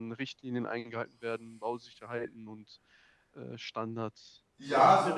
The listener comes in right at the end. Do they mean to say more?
Yes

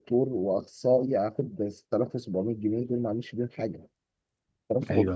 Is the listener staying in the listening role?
Yes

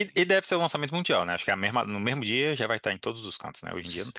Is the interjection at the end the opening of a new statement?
Yes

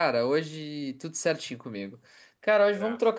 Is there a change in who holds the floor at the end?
No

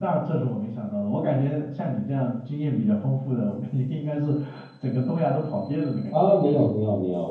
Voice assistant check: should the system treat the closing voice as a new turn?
Yes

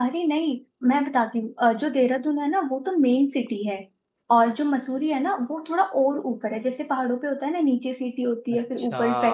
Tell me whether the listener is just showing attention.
Yes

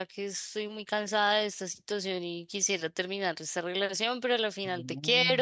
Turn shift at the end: No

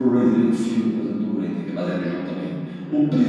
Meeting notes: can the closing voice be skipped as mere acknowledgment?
Yes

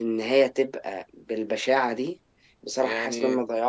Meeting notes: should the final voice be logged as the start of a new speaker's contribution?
No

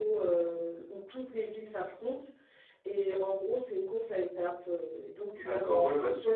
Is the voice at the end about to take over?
Yes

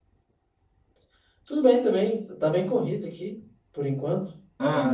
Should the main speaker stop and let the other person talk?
No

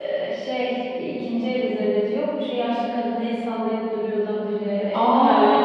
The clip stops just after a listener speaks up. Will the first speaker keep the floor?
No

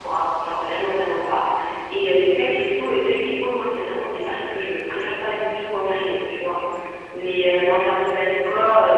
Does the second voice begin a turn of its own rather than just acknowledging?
No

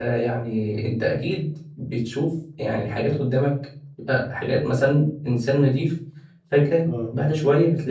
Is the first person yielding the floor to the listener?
No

